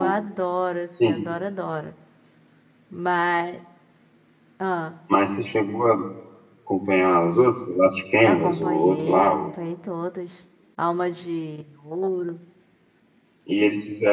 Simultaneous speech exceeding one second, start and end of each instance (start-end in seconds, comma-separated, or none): 8.2-9.5